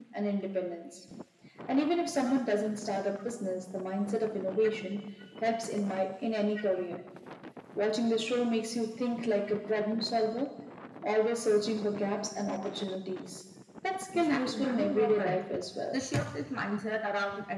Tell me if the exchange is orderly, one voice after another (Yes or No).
No